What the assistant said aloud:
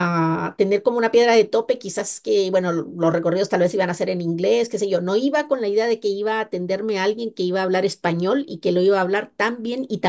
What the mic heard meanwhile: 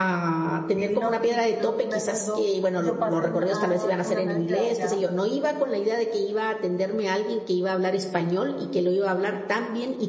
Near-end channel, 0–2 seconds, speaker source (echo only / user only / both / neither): both